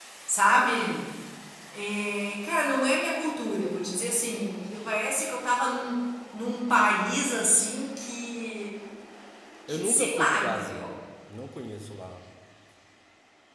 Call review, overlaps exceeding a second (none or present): present